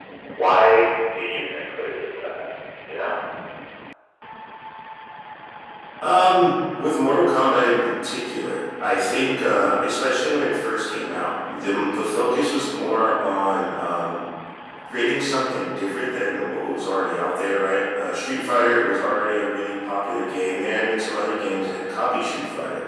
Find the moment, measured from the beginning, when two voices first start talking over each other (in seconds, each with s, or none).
none